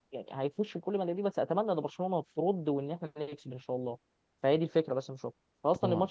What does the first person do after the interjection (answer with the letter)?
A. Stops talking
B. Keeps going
B